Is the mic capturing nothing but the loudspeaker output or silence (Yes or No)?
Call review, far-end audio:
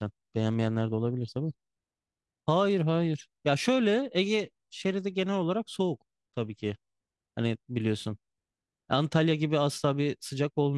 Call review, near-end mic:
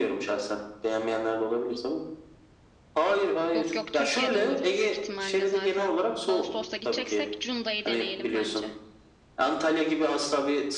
No